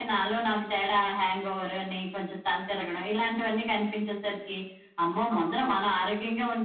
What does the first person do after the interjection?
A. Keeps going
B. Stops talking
A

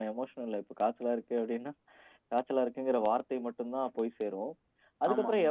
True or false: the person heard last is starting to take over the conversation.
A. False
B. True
A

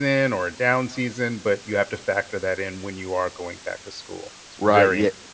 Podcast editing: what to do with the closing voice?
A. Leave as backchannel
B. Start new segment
B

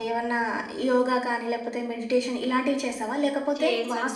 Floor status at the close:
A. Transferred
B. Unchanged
B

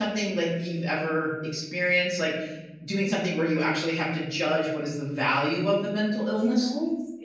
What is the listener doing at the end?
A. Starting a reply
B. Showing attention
A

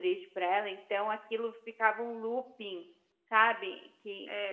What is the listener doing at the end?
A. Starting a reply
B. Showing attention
A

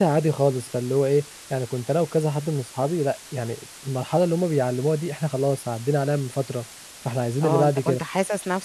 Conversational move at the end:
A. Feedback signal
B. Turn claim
B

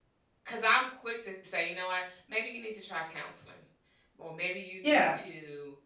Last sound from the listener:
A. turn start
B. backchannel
B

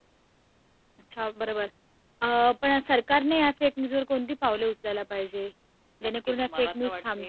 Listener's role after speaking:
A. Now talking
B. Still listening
A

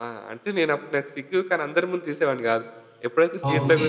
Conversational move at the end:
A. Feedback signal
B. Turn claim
A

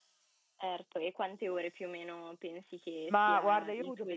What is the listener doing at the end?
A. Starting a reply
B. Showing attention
A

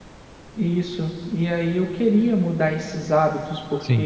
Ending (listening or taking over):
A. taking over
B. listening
B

